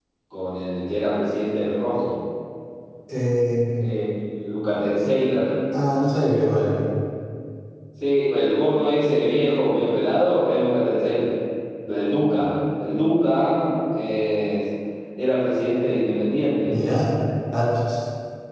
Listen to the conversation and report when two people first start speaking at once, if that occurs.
none

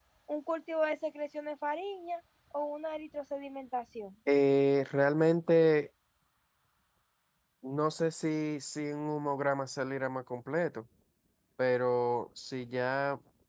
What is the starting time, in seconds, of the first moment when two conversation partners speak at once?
none

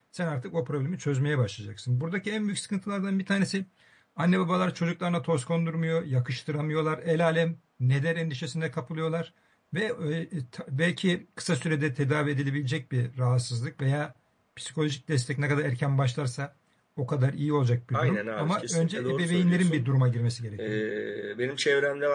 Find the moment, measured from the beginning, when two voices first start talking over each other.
17.9 s

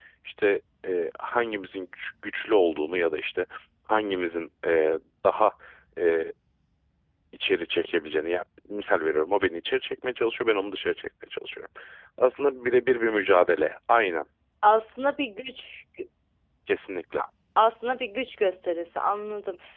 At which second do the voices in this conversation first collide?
none

